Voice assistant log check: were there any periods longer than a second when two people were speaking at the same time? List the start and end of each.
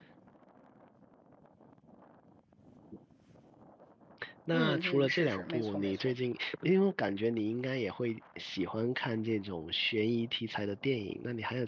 4.5-6.2

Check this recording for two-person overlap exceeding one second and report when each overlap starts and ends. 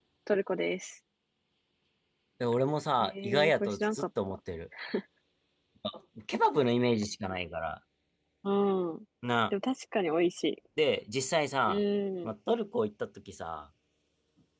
3.0-4.4

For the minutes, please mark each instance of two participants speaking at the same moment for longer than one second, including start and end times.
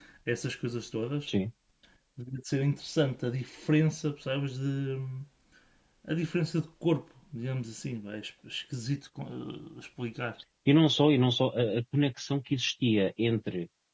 none

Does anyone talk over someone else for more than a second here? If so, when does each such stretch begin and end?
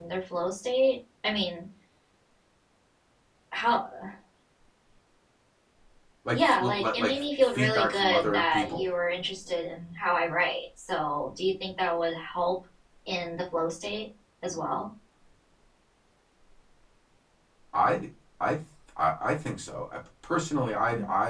6.3-8.8

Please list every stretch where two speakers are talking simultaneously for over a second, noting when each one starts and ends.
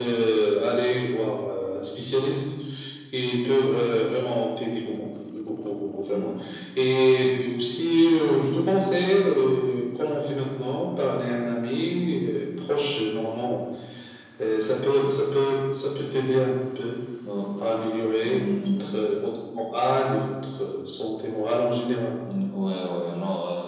none

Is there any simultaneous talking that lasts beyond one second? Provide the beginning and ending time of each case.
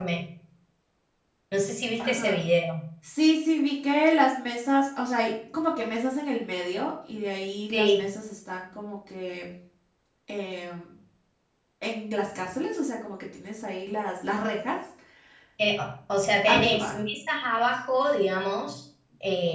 none

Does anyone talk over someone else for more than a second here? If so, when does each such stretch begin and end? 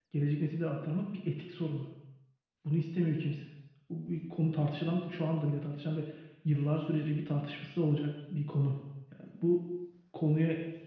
none

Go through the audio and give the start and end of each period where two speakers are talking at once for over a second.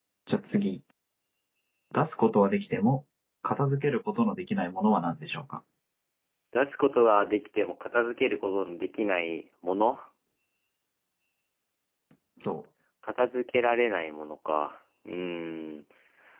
none

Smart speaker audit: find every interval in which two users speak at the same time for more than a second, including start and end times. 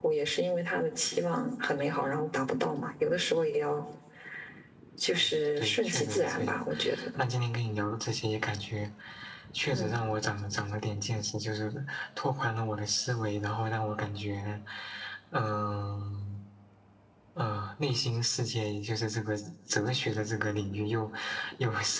5.2-6.6

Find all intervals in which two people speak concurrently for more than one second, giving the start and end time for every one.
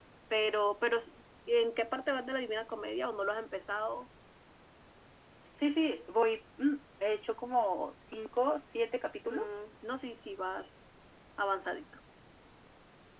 none

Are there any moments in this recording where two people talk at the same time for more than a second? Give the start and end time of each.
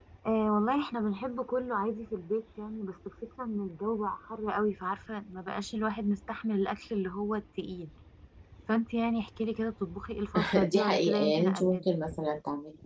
10.6-11.8

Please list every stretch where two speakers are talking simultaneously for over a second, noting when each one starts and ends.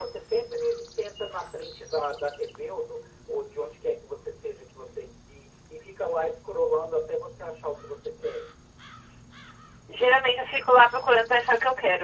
none

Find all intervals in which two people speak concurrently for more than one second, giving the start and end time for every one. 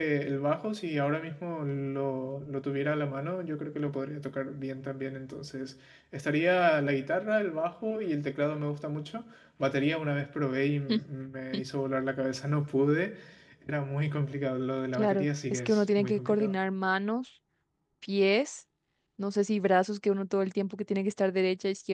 14.9-16.6

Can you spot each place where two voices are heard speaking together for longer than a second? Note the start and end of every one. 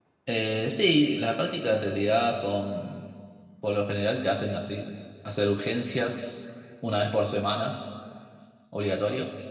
none

